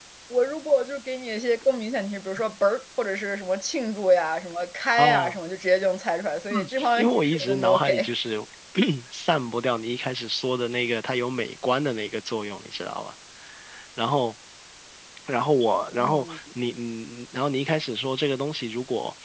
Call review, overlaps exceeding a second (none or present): present